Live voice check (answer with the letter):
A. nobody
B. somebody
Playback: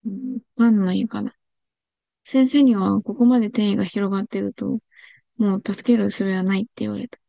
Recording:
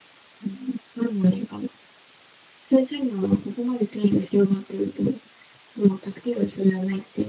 A